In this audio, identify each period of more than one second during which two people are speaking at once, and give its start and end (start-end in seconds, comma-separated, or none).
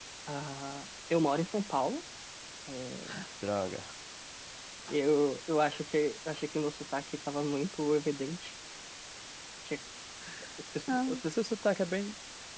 none